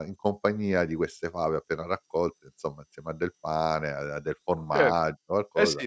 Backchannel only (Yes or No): No